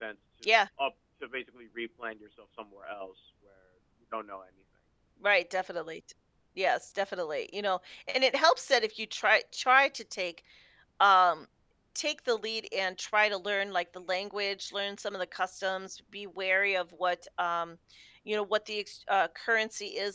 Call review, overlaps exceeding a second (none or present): none